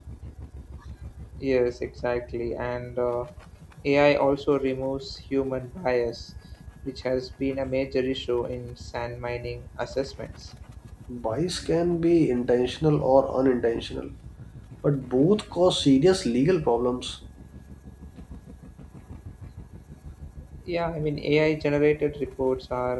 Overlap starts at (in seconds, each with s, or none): none